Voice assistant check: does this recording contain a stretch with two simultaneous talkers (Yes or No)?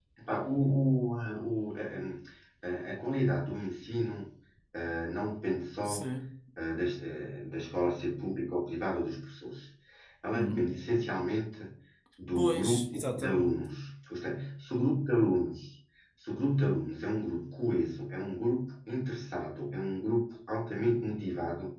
Yes